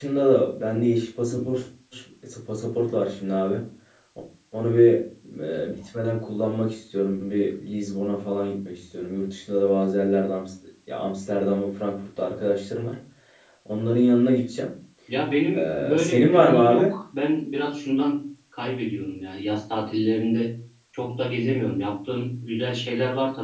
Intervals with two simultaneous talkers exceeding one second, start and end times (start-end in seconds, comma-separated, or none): 15.5-16.9